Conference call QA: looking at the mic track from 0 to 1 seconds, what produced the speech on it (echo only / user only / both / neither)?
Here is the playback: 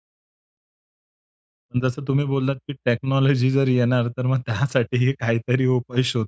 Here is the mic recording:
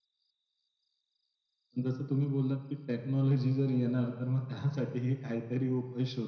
neither